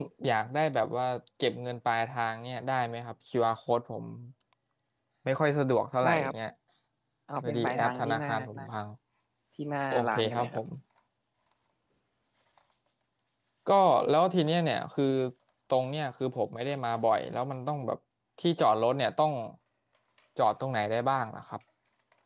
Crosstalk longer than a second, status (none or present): present